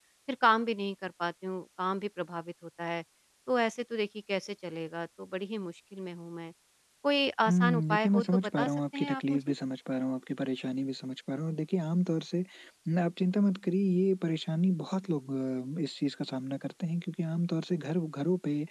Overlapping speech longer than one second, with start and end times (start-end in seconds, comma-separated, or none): 7.5-9.5